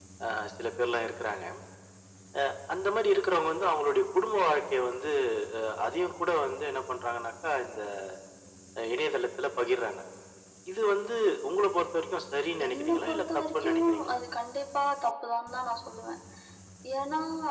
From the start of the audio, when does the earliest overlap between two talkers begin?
12.6 s

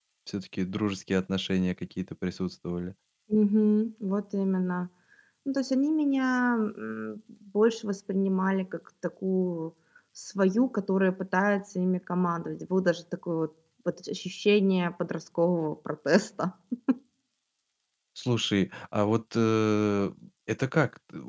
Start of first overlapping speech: none

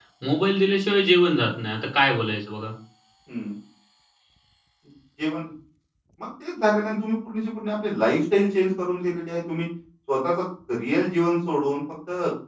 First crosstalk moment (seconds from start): none

